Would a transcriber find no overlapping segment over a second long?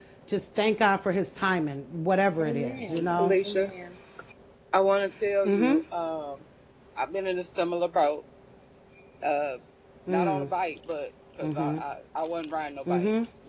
No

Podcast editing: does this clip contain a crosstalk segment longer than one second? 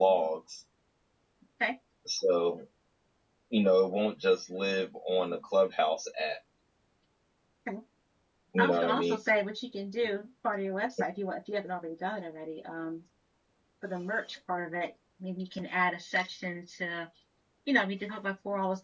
No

